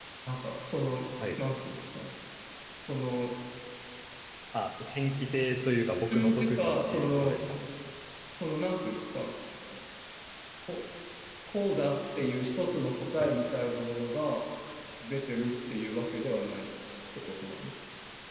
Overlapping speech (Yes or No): Yes